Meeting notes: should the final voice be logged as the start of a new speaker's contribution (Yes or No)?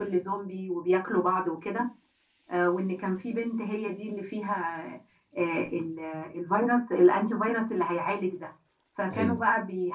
No